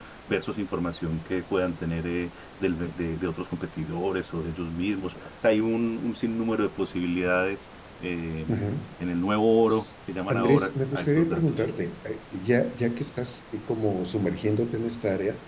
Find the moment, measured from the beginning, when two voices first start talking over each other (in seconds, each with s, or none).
10.3 s